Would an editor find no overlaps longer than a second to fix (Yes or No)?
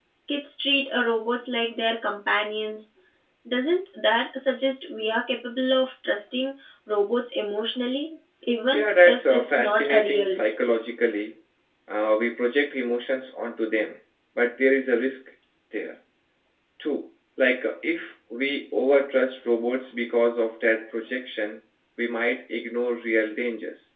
No